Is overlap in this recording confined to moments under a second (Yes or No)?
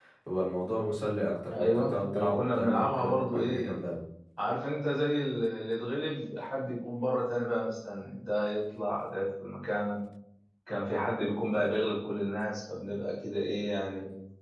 No